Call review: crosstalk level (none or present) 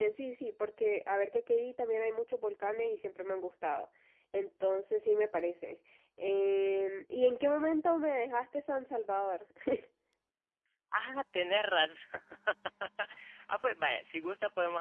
none